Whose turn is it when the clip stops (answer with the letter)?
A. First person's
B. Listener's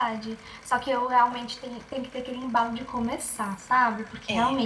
A